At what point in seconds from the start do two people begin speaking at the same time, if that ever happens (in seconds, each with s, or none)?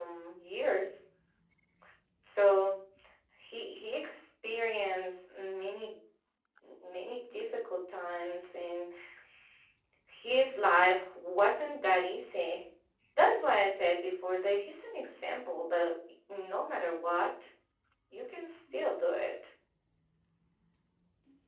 none